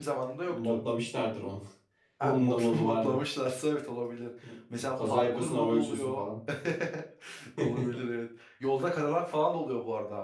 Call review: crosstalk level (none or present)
present